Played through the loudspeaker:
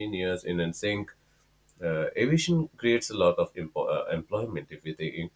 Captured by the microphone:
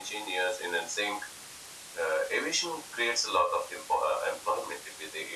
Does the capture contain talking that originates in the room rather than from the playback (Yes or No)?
No